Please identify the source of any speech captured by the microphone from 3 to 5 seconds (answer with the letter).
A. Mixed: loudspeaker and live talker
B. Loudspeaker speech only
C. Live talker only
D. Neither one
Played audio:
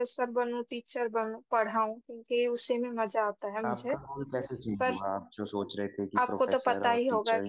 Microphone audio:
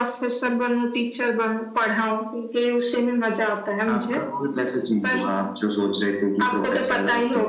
B